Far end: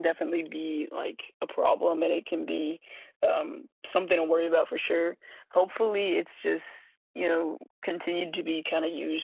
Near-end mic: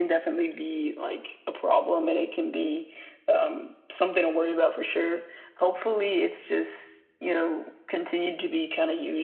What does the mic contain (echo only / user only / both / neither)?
echo only